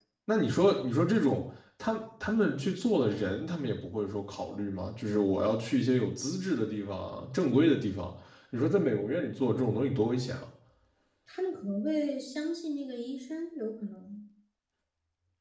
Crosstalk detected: No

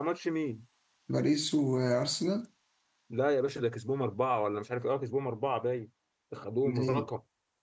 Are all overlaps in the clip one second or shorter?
Yes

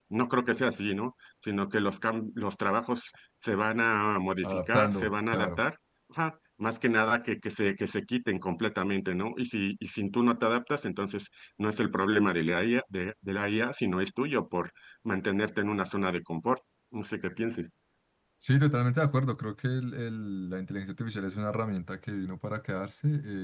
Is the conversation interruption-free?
No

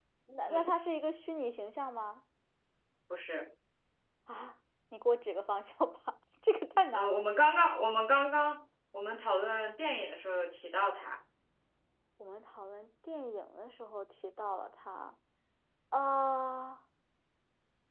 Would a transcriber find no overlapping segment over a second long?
Yes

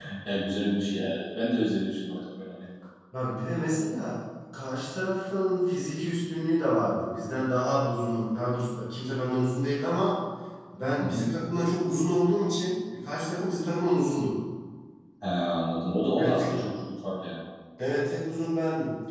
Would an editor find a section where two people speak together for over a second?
No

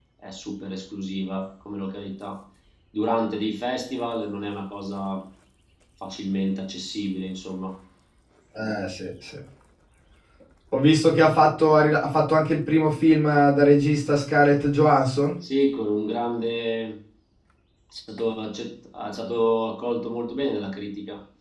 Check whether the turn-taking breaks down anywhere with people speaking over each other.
No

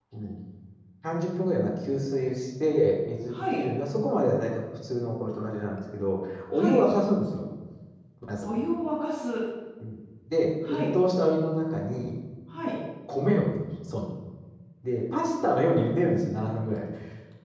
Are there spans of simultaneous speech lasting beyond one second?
No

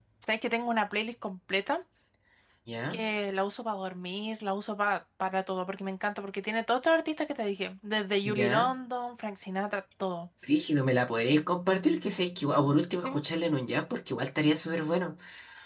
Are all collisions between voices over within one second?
Yes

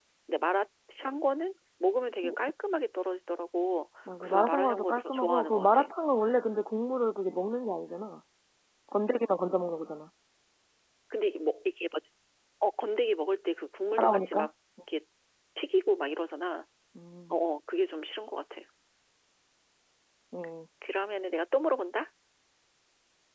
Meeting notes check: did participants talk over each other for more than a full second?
Yes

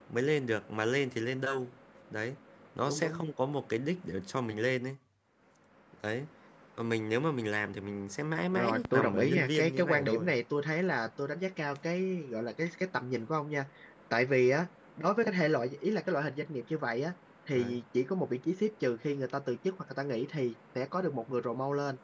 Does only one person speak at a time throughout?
No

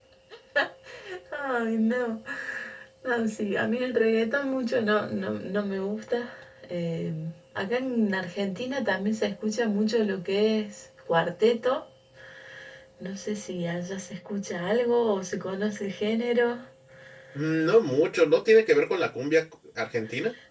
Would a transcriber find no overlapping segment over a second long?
Yes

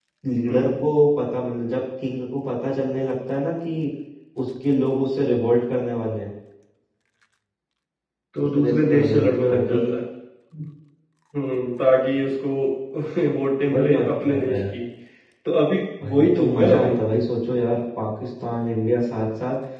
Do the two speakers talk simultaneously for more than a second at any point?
Yes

